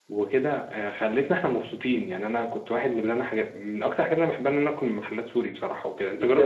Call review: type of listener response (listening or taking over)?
taking over